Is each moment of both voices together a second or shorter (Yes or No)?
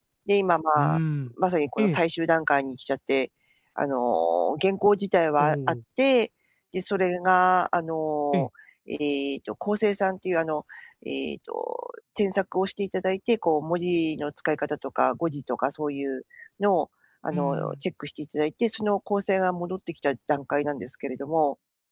Yes